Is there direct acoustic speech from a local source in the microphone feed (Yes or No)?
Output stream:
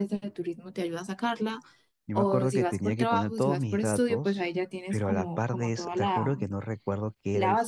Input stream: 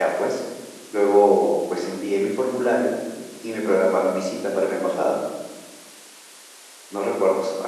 Yes